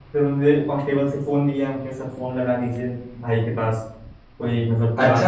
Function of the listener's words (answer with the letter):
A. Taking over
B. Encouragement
A